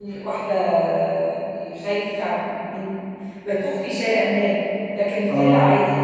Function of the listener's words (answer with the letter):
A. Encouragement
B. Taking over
A